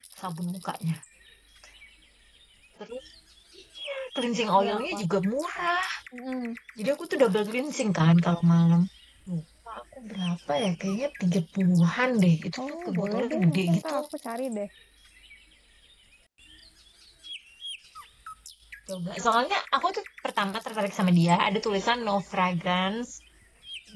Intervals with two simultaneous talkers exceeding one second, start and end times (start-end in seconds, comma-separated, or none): 12.7-13.9